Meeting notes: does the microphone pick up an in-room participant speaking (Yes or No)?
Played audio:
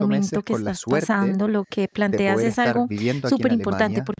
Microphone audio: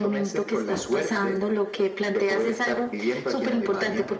No